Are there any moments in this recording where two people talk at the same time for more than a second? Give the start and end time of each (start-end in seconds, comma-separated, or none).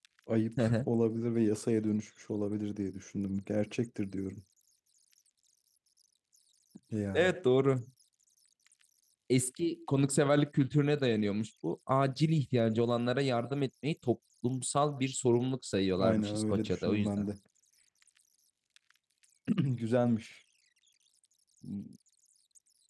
16.0-17.3